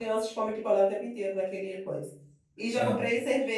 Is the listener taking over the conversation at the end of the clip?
No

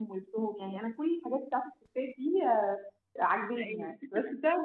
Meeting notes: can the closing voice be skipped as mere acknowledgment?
Yes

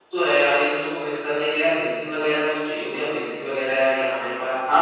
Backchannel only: No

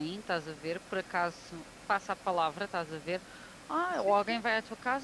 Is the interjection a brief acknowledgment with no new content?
Yes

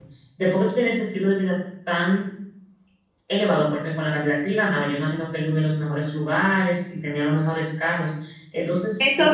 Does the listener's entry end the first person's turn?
Yes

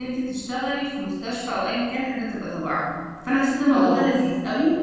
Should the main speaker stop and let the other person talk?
No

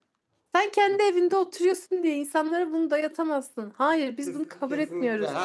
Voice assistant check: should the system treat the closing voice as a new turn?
Yes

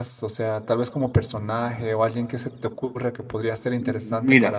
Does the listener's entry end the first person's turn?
Yes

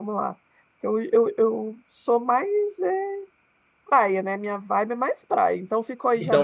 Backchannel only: No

